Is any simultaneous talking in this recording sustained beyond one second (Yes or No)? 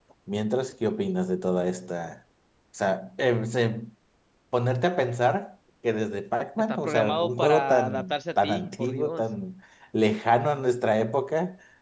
Yes